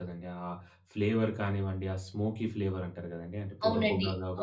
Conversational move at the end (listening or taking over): taking over